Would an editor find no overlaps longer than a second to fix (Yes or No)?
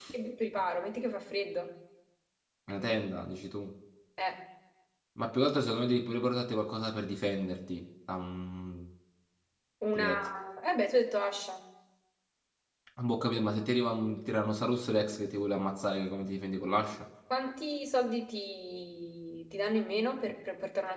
Yes